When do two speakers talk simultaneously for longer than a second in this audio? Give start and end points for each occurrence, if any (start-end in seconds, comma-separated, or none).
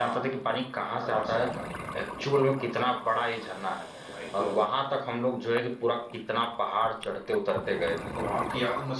none